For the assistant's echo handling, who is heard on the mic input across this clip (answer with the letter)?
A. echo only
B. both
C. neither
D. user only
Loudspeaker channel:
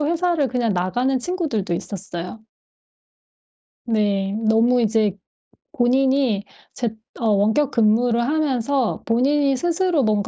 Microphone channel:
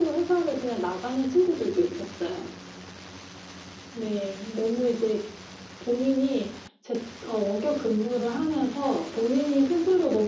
A